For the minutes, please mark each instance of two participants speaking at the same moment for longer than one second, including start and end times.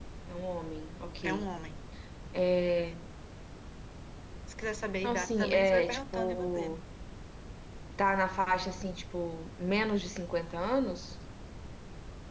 5.0-6.8

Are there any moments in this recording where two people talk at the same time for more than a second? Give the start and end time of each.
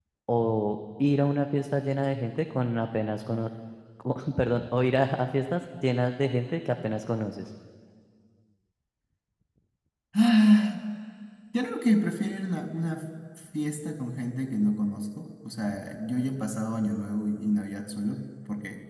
none

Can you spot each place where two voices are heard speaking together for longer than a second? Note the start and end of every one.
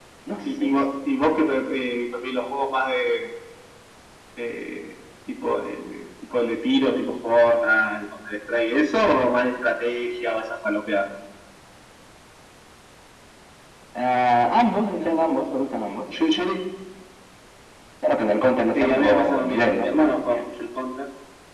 18.7-20.4

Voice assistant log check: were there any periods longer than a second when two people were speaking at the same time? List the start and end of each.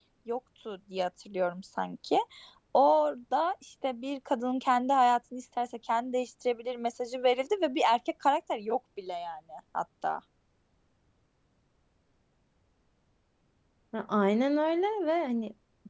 none

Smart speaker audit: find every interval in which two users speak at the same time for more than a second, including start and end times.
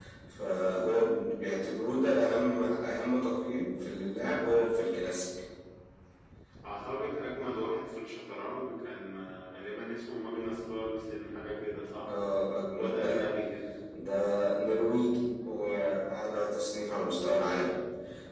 none

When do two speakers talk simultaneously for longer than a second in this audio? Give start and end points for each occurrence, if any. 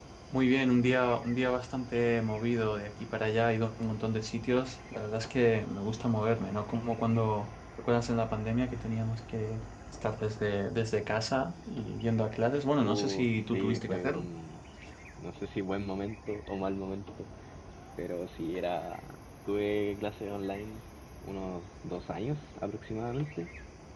12.8-14.2

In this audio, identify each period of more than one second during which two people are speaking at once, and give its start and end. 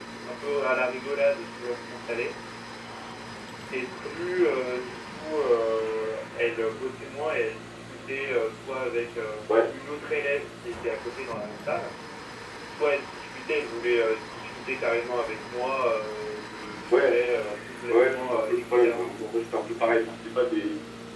17.9-19.3

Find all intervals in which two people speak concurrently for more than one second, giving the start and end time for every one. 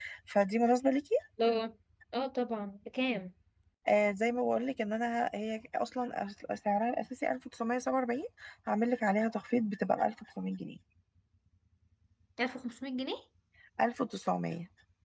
none

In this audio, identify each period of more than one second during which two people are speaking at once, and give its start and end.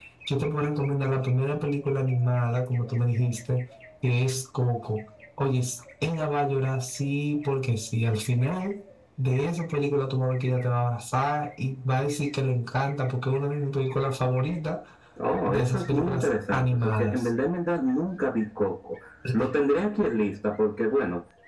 15.5-17.2

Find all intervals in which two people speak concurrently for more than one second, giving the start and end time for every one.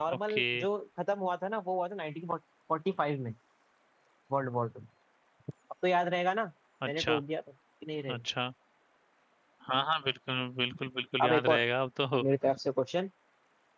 none

